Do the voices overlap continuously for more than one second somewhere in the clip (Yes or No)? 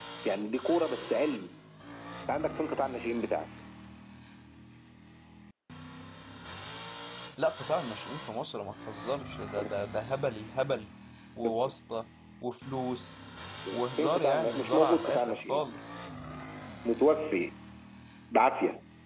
Yes